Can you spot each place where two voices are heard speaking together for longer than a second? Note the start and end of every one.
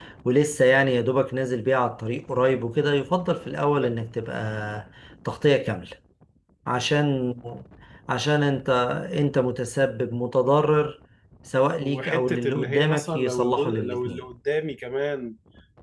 11.8-14.2

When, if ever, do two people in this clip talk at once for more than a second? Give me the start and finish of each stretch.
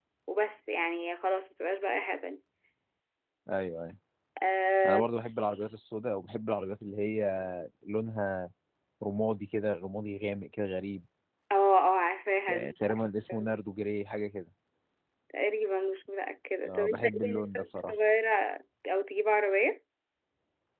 16.7-17.9

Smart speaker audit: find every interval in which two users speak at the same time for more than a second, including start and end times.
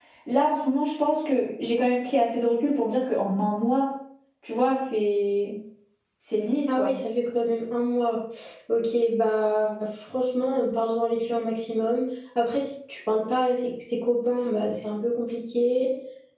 none

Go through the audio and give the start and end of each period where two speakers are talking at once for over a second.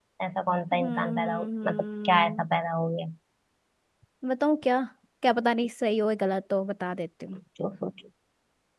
0.7-2.5

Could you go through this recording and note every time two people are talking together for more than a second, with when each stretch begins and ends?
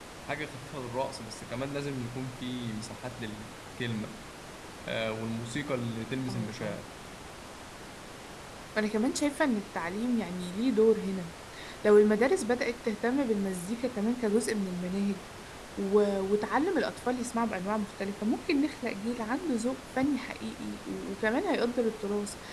none

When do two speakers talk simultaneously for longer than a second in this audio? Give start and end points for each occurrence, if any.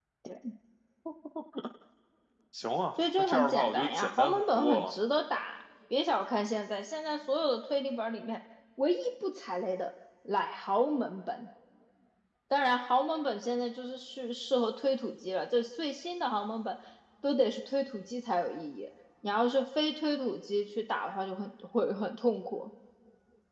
3.2-4.9

